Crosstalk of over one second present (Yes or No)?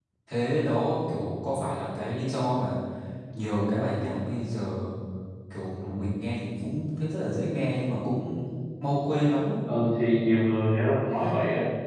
No